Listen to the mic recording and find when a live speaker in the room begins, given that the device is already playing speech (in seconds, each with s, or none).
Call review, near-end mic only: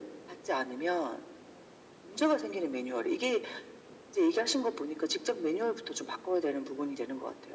none